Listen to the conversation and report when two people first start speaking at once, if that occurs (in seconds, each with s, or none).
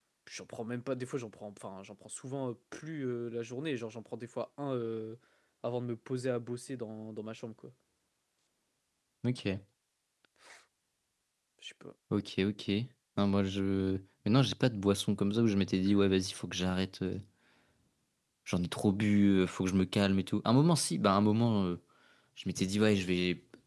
none